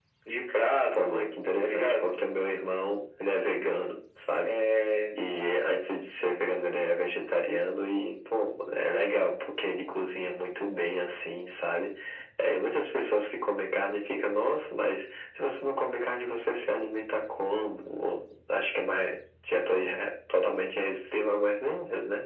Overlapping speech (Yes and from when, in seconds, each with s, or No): Yes, from 0.9 s